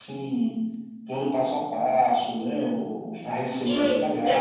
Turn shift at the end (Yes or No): Yes